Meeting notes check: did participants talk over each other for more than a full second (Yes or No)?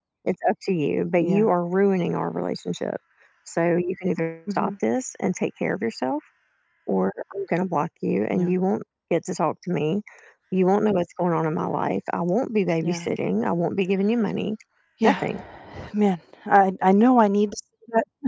No